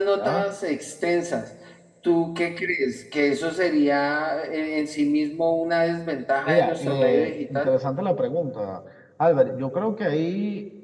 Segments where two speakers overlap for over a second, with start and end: 6.5-7.7

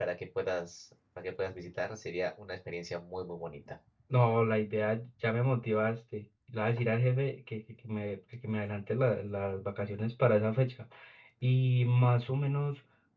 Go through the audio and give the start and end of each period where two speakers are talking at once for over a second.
none

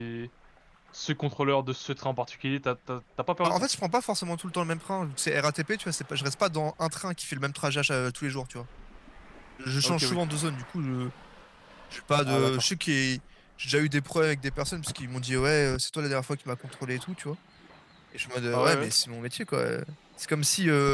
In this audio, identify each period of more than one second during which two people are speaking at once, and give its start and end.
none

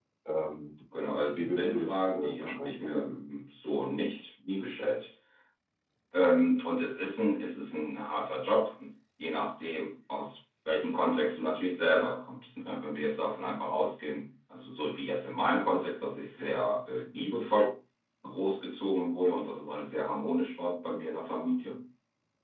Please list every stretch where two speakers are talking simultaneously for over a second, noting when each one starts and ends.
1.4-2.8

